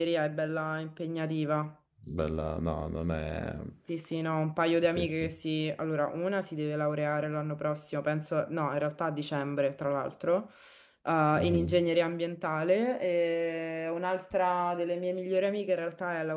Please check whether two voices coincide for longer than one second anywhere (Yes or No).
No